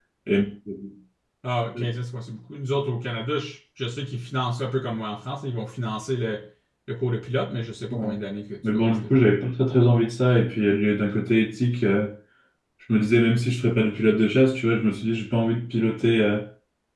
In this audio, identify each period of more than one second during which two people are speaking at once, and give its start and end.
none

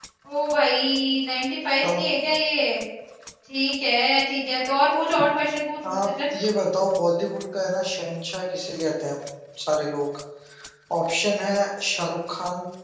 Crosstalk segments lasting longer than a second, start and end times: none

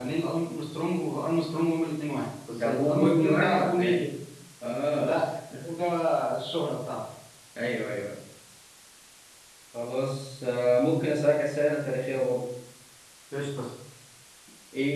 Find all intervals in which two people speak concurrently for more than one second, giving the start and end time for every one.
2.5-4.0

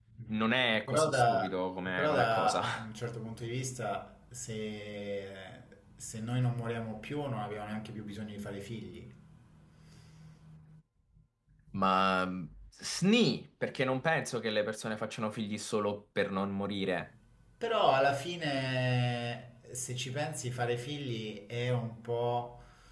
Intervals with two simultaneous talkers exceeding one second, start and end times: 0.8-2.9

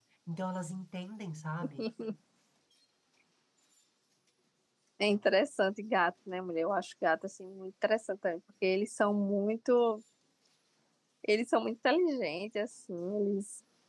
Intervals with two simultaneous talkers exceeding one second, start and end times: none

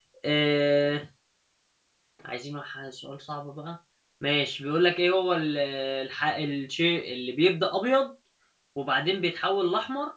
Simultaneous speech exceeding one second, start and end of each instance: none

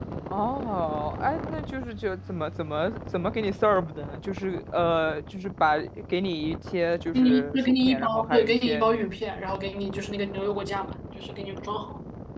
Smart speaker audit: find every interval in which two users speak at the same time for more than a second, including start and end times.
7.1-9.1

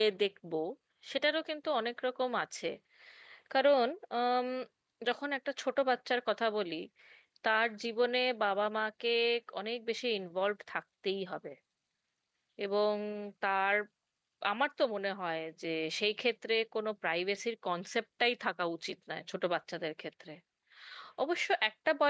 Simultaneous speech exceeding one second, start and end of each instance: none

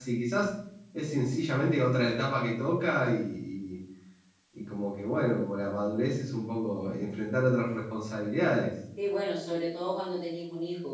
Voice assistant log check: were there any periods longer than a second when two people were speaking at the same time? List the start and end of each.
none

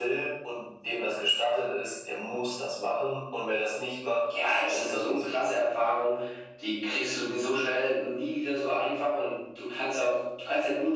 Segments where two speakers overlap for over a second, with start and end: 4.7-5.9

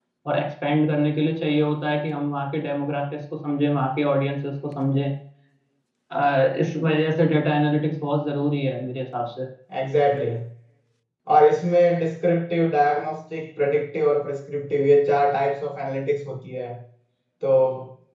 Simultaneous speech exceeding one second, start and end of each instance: none

